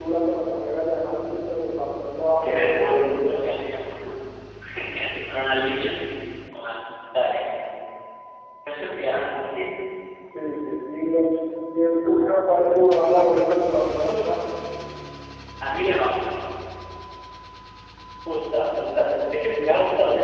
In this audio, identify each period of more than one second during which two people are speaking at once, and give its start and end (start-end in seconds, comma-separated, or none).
2.4-3.6